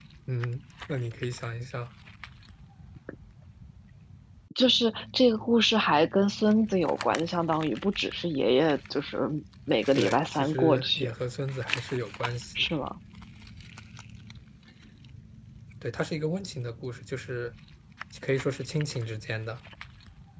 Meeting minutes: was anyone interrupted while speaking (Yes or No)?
Yes